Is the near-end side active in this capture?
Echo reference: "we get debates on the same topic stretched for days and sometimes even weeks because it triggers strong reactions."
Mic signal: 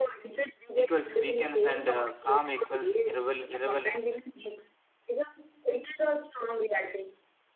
Yes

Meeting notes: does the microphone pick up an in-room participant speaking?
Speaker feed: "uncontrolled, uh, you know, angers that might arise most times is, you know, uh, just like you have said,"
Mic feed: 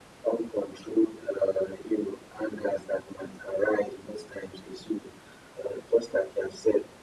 No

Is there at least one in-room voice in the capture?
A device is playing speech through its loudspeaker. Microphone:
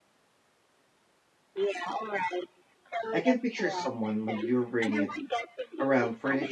Yes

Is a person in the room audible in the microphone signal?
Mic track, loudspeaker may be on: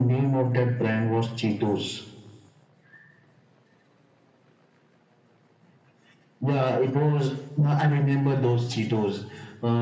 No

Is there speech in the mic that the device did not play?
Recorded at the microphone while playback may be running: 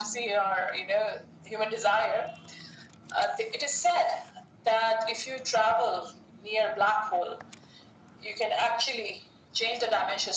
No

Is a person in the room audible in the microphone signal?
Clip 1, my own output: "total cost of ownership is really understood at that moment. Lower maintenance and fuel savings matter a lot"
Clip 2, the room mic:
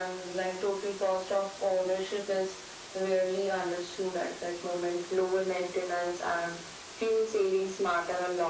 No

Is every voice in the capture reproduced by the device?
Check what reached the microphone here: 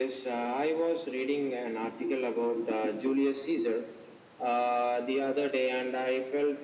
Yes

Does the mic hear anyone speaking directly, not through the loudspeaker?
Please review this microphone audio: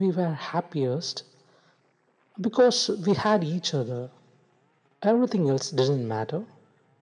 No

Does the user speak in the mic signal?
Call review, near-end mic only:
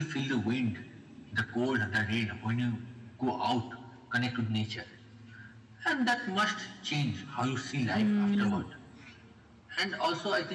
Yes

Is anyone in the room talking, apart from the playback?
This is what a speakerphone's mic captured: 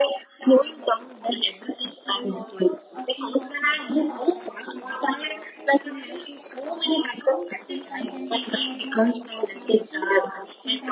Yes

